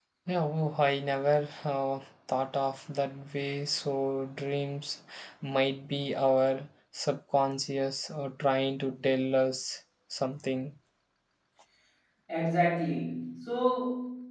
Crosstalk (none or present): none